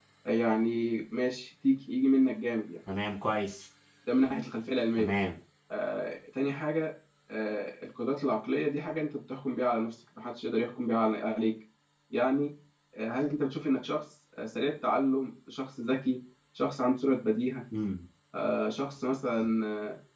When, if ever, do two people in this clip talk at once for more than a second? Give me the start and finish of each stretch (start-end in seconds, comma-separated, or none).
none